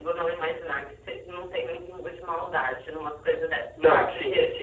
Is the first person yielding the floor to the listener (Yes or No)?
Yes